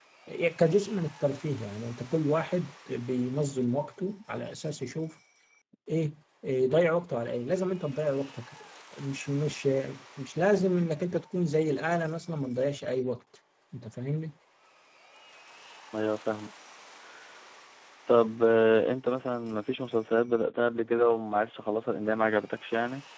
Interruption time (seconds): none

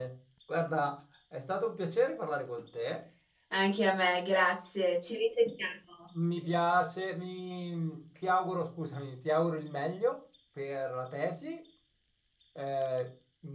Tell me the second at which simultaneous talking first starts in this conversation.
none

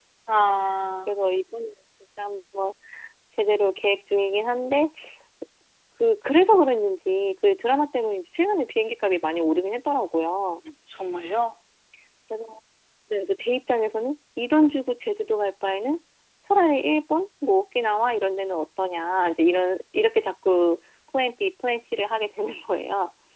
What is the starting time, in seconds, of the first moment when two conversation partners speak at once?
none

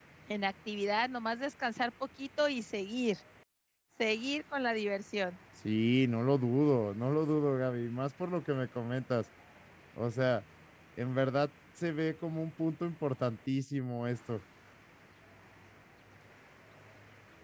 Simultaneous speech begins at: none

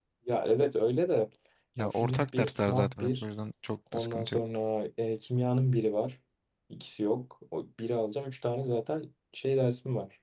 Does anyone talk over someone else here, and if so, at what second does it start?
1.8 s

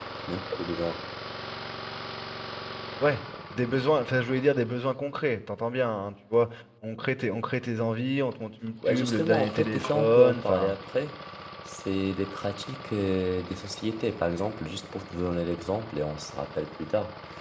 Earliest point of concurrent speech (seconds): 8.8 s

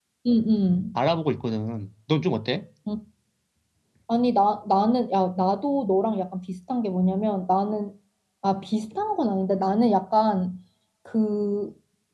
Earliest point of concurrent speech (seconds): none

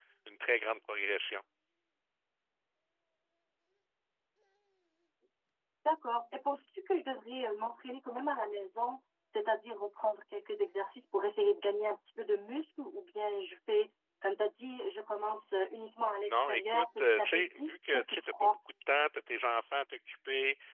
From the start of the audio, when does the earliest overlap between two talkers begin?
16.2 s

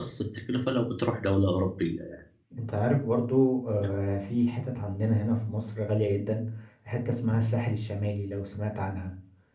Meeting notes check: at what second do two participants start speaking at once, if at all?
none

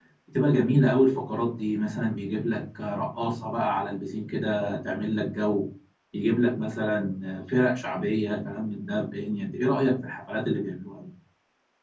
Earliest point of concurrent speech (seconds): none

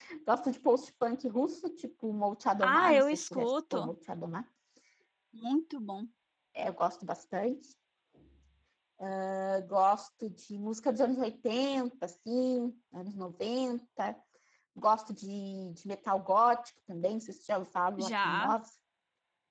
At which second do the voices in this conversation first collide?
2.6 s

